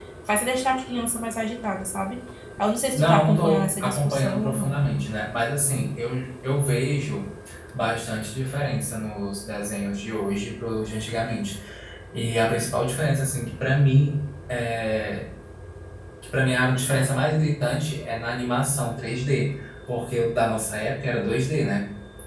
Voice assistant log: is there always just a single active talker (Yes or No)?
No